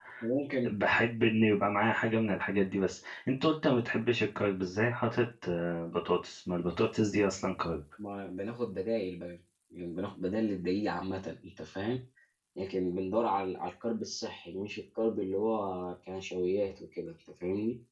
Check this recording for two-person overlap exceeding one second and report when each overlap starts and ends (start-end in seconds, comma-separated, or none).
none